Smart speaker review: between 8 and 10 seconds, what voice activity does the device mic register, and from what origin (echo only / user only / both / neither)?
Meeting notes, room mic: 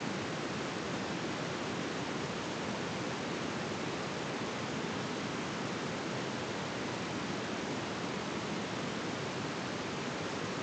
neither